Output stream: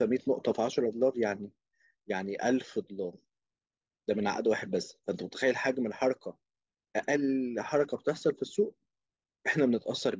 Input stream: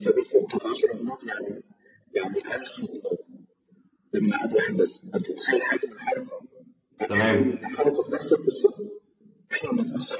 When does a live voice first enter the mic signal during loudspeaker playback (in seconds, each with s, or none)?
7.1 s